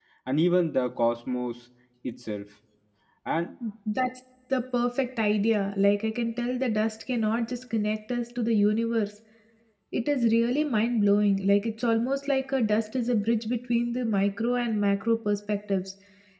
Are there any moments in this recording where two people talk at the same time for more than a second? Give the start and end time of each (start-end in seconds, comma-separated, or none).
none